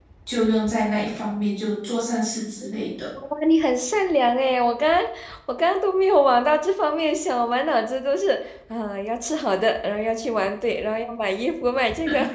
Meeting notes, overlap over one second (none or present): none